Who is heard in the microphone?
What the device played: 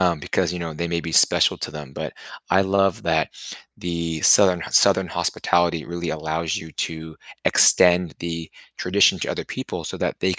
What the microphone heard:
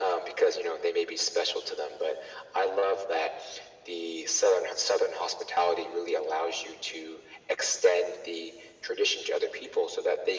echo only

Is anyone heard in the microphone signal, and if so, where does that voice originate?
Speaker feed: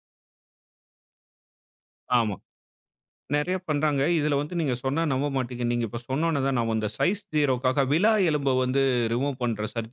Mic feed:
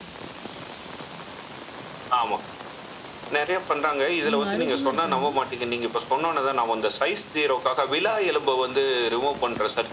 both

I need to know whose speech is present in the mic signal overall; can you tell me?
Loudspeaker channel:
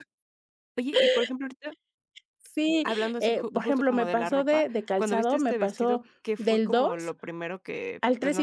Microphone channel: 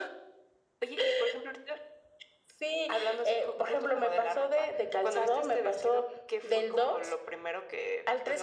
echo only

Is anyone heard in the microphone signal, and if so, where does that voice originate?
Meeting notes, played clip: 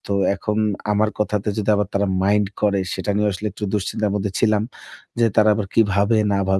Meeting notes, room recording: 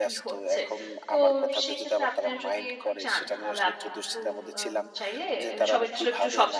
both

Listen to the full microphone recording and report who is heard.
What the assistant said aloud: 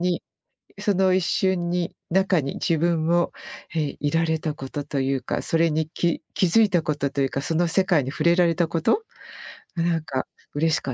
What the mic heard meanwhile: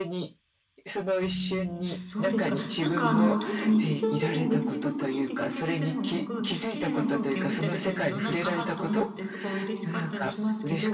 both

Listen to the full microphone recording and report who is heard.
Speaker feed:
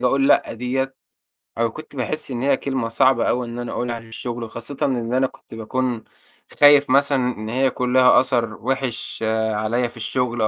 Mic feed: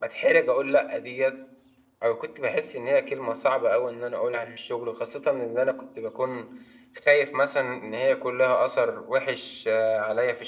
echo only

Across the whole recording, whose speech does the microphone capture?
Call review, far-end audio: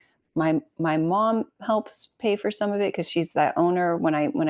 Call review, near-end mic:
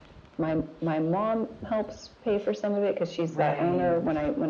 both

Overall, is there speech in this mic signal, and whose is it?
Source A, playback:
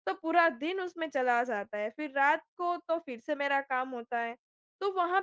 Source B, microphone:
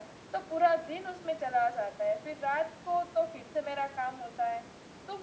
echo only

